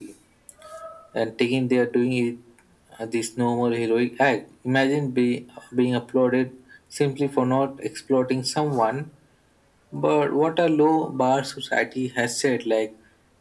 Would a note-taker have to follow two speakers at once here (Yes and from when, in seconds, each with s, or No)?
No